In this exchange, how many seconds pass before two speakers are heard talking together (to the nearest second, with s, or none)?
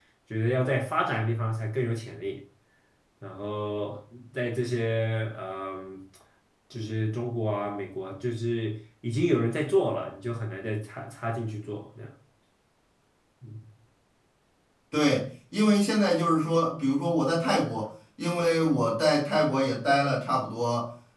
none